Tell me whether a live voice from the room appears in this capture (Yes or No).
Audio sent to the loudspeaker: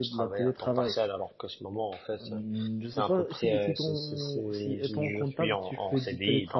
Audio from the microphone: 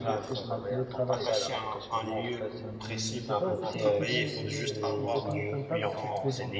Yes